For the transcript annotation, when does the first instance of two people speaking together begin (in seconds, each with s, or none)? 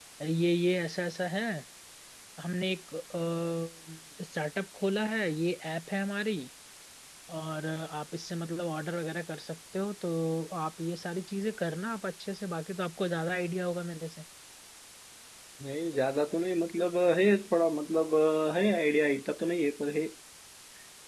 none